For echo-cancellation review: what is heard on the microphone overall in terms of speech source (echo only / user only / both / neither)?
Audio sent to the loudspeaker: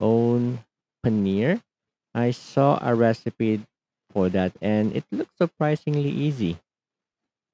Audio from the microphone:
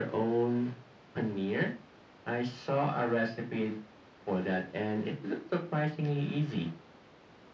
echo only